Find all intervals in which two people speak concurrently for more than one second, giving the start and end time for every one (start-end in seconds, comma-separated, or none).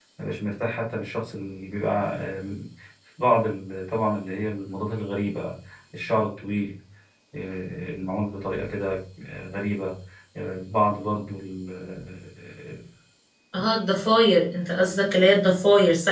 none